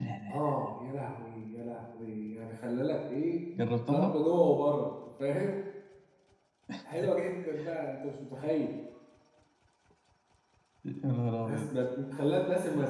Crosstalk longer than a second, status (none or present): none